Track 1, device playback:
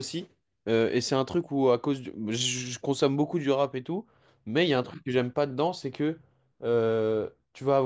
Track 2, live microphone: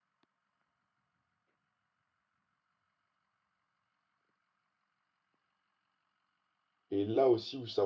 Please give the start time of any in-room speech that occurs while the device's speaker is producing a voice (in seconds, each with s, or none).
6.9 s